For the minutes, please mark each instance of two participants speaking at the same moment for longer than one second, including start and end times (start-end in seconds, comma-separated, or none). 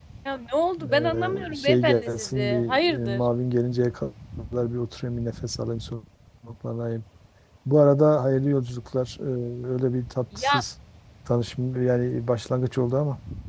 0.8-3.2